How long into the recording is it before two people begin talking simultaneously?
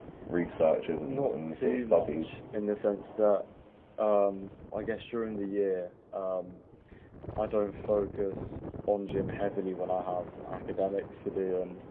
1.0 s

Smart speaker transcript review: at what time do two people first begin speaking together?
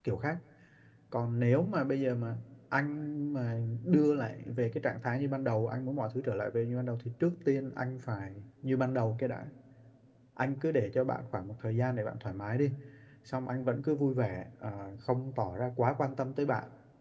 none

